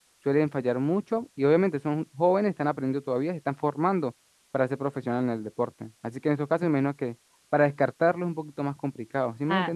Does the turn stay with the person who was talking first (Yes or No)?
No